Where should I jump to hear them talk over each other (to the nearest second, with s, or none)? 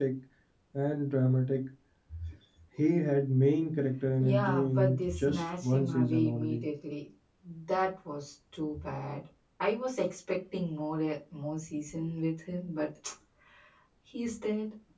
4 s